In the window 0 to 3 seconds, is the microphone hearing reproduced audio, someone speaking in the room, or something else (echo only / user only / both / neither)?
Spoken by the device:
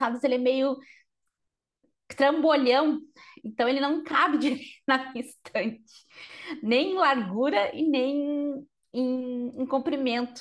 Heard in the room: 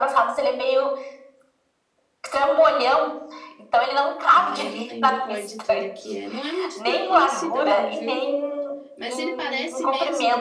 echo only